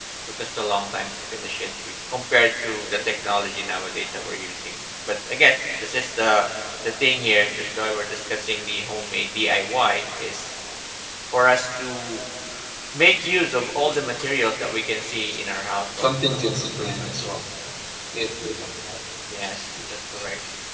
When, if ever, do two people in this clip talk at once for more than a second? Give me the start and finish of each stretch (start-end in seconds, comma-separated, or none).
16.0-17.2